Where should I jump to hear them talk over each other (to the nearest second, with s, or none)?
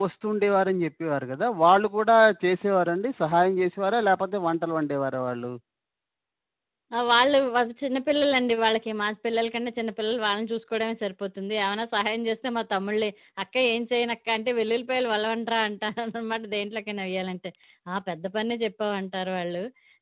none